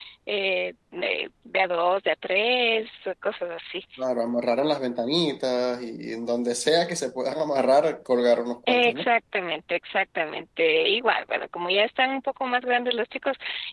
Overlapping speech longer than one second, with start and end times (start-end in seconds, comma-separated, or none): none